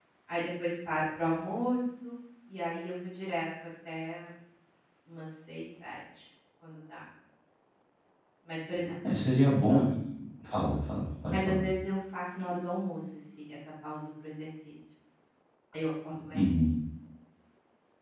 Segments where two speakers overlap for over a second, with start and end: none

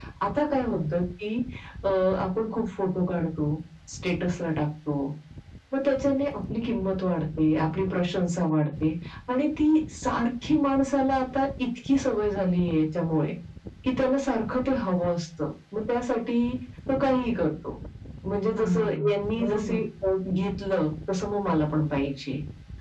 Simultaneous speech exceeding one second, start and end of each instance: 18.6-19.8

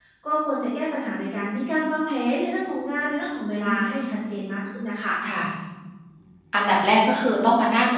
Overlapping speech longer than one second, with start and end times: none

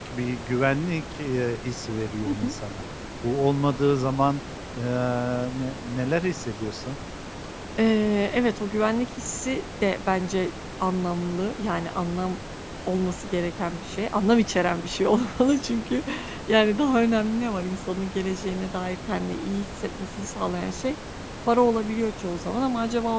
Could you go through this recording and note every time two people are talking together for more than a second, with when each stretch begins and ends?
none

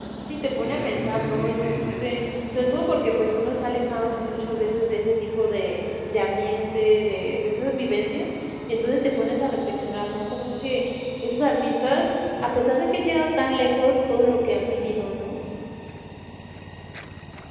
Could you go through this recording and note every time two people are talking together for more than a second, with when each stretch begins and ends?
0.6-2.1

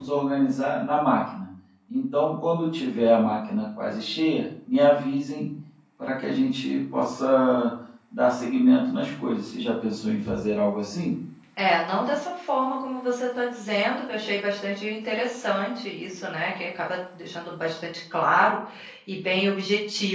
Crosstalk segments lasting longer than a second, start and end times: none

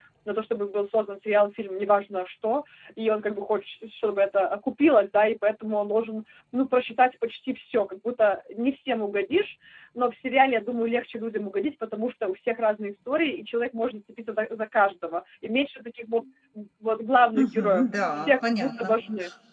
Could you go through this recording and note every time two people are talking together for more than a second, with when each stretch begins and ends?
17.4-18.9

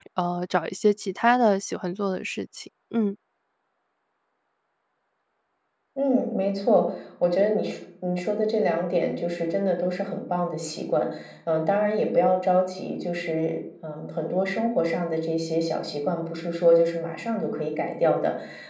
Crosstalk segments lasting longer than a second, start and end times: none

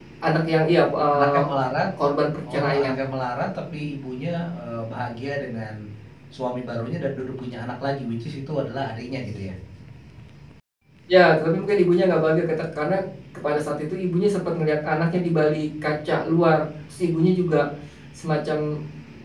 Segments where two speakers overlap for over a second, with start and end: none

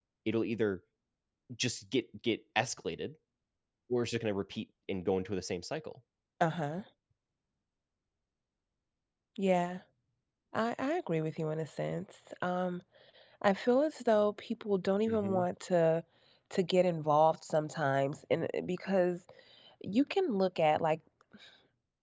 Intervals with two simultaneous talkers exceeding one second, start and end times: none

